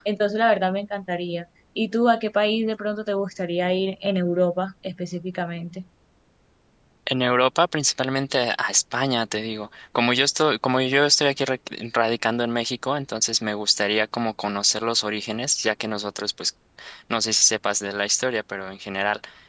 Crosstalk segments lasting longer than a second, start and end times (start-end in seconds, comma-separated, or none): none